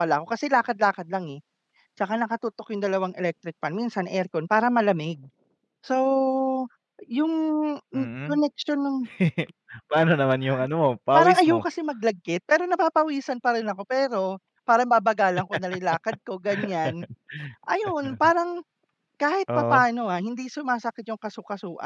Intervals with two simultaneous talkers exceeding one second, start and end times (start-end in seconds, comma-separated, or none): none